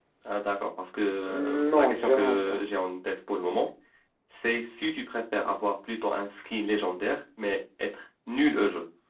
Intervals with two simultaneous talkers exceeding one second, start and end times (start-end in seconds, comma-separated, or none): 1.3-2.7